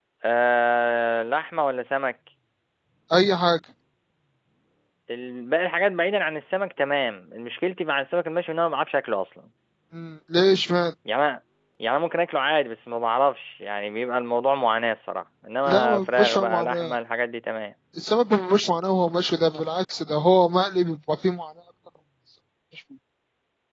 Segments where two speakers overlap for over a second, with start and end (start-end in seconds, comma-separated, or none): 15.7-16.9